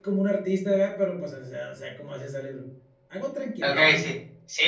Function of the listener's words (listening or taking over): taking over